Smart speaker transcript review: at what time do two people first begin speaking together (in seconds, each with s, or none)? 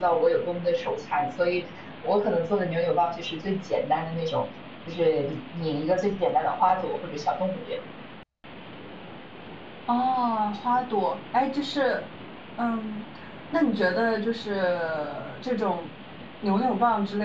none